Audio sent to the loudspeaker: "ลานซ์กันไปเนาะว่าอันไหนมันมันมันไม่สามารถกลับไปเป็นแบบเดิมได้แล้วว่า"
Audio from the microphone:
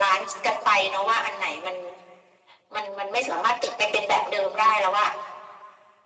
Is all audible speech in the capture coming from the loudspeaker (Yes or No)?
Yes